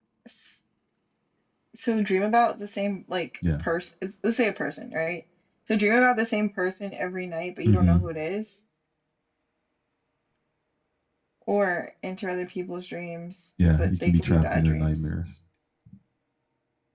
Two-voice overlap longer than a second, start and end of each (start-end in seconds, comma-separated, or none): 13.8-15.0